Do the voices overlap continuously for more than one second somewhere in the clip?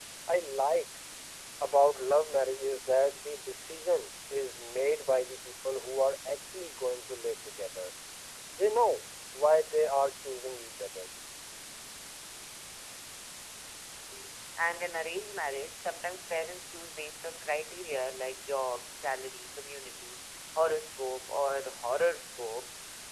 No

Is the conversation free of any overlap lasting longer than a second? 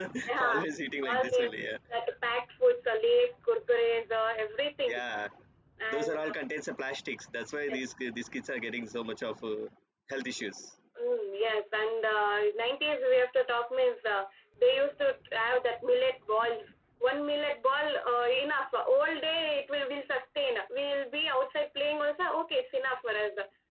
Yes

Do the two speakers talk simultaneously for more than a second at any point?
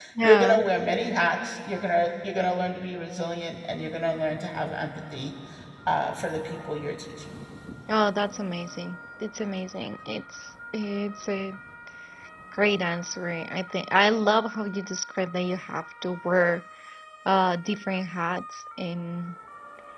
No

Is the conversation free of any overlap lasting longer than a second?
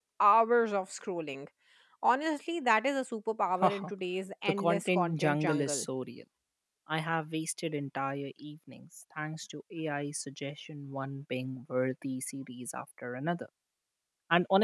No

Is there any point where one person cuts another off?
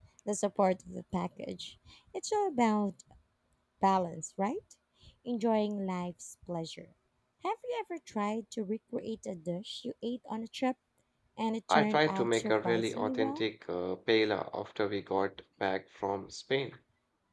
Yes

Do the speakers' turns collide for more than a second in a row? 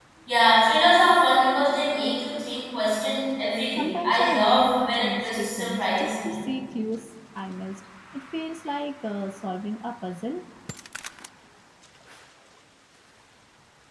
Yes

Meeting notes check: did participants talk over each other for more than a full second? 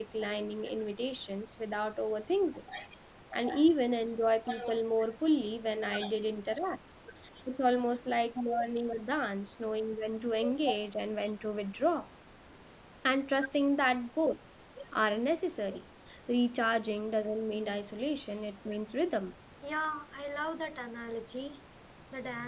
No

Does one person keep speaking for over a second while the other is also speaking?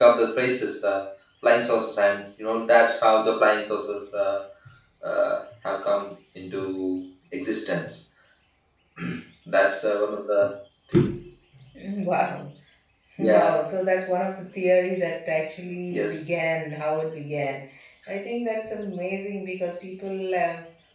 No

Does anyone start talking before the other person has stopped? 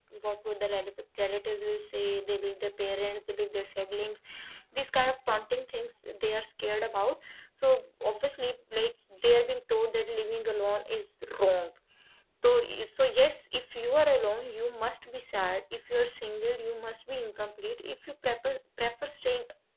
No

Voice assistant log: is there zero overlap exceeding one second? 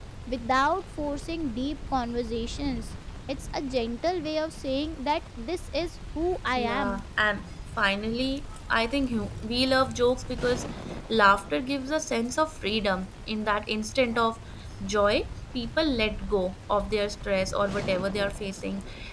Yes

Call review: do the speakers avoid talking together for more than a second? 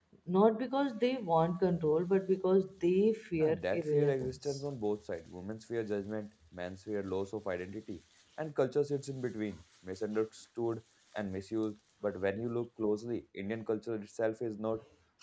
No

